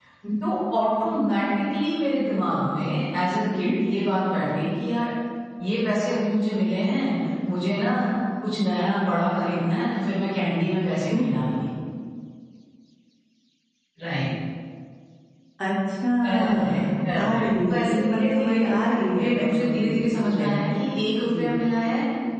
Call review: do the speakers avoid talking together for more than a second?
No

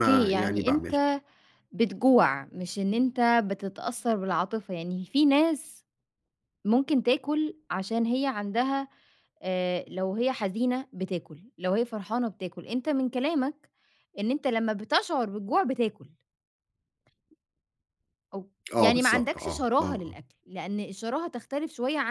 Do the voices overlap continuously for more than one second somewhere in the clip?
Yes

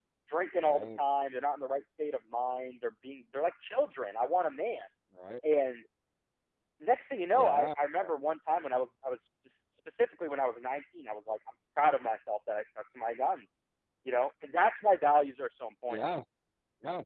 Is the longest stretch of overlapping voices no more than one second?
Yes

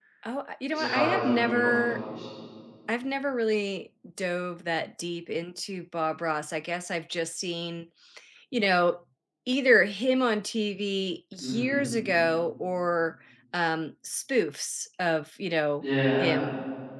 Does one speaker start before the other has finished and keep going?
Yes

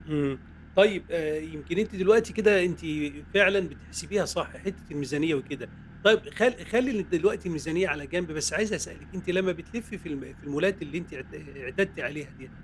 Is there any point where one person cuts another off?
No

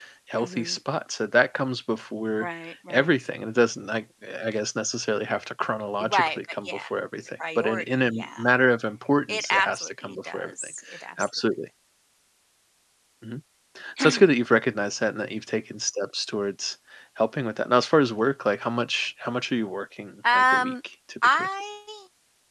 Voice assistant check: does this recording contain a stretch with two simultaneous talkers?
Yes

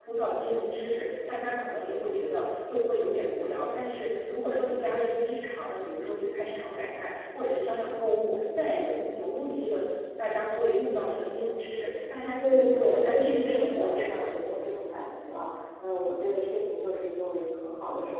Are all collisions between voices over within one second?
No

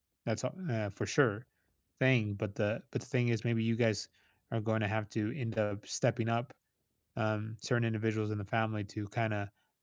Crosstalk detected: No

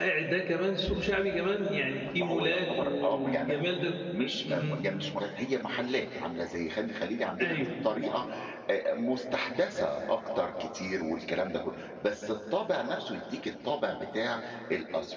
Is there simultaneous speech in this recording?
Yes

